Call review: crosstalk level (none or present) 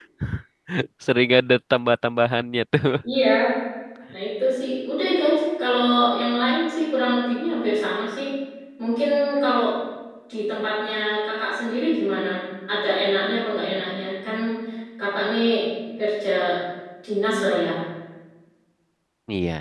none